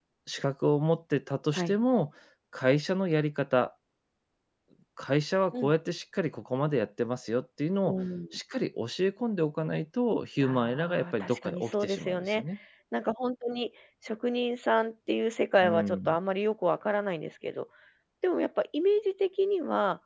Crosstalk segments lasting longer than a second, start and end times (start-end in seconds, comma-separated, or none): 10.4-12.4